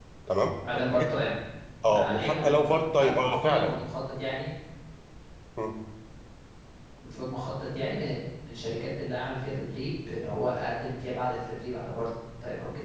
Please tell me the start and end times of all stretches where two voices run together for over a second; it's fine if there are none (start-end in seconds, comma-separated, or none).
1.8-3.8